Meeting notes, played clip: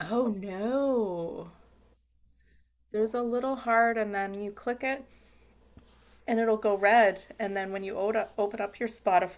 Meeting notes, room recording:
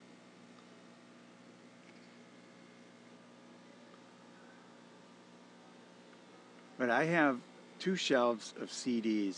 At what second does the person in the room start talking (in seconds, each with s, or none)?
6.8 s